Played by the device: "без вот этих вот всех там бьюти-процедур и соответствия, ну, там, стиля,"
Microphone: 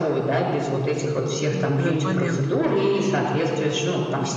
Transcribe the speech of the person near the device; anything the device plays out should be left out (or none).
вот этот момент.